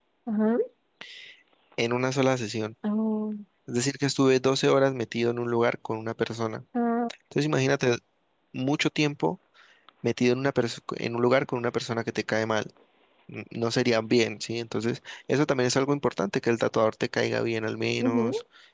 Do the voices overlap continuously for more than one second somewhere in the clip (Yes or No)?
No